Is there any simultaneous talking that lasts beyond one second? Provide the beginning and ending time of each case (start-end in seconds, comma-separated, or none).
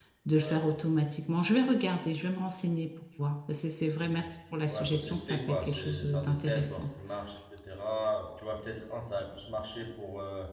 4.7-6.9